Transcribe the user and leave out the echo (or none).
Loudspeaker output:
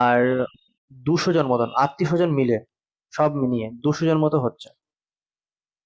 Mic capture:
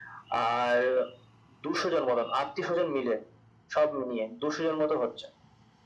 none